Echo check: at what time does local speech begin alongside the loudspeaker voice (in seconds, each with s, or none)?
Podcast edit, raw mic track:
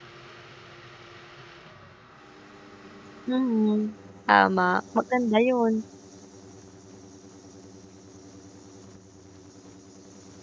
3.3 s